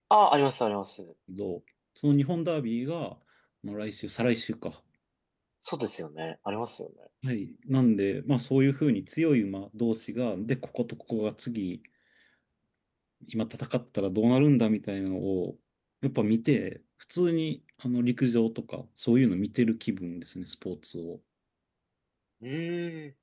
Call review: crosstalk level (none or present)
none